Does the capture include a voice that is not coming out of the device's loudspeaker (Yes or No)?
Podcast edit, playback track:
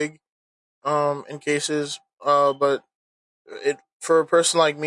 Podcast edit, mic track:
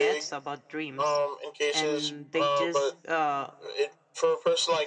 Yes